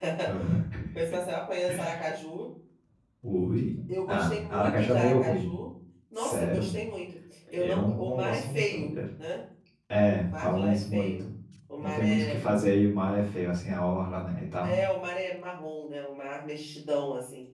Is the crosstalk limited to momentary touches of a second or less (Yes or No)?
No